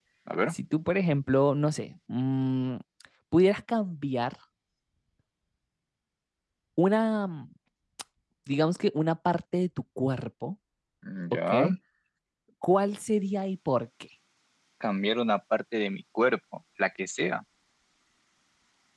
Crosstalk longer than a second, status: none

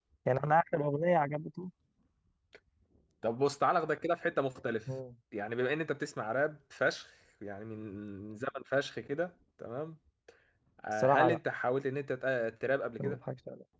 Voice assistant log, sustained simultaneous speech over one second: none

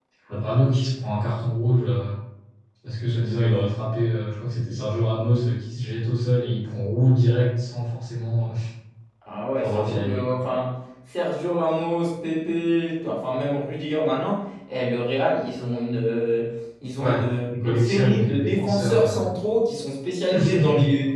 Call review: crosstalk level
present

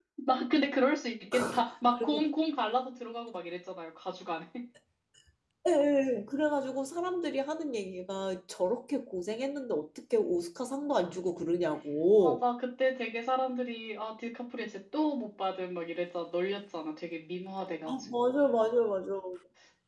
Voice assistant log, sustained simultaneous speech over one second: none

